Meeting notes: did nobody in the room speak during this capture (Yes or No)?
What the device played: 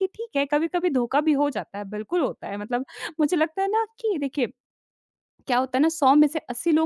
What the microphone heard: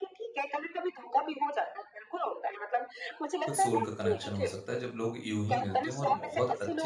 No